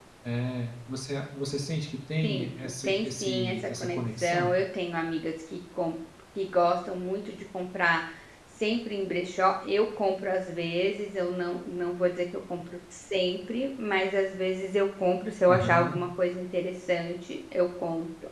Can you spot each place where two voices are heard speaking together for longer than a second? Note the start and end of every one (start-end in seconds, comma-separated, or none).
2.2-4.5